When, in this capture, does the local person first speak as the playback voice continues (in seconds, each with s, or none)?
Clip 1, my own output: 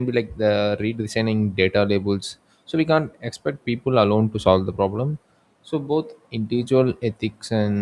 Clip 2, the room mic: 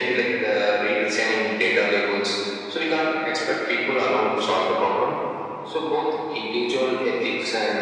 none